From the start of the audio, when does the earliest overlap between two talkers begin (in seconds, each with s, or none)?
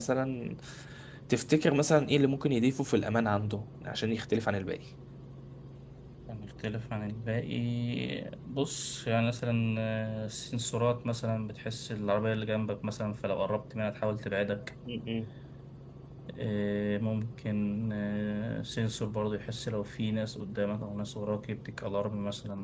none